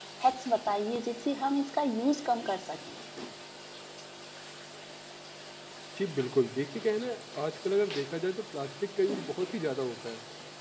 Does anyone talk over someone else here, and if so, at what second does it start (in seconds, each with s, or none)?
none